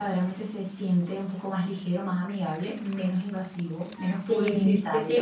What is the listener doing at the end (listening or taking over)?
taking over